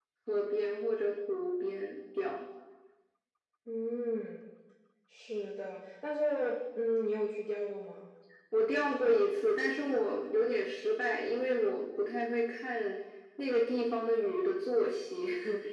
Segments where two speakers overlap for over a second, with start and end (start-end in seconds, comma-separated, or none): none